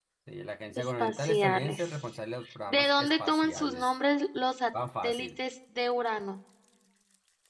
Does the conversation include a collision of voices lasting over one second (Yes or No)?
Yes